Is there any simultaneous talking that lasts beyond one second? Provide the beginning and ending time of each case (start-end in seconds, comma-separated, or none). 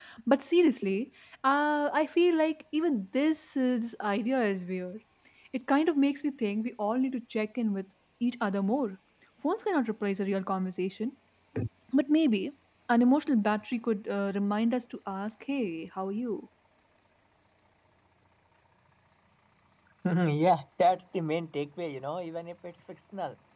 none